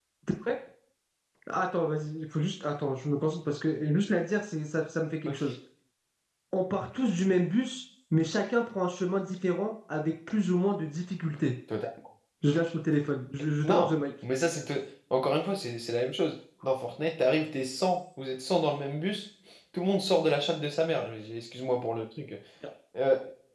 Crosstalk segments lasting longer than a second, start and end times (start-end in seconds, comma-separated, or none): none